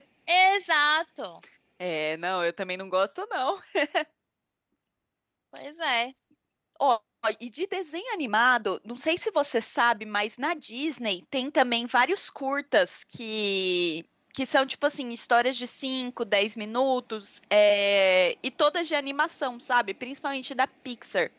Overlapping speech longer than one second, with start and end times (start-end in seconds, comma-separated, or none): none